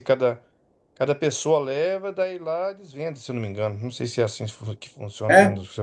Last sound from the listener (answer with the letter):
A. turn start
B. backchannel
A